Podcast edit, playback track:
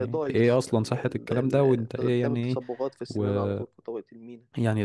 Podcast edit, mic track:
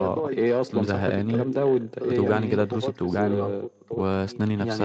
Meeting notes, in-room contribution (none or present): present